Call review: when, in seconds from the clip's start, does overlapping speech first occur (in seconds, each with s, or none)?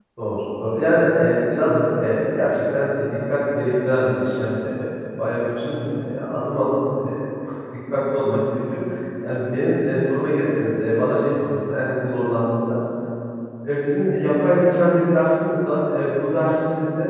none